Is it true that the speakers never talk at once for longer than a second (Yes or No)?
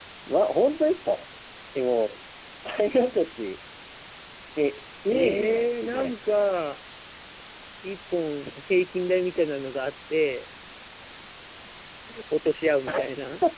No